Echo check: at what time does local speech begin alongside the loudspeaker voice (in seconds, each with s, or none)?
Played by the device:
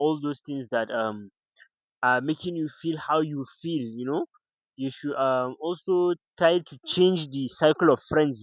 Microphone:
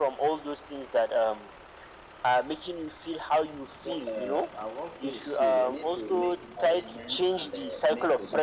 3.8 s